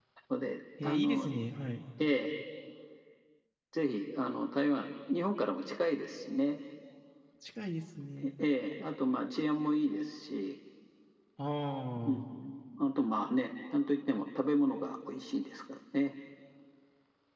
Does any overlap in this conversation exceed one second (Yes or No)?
No